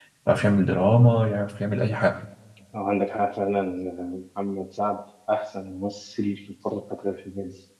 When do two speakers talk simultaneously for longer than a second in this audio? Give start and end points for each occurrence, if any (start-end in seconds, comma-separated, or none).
none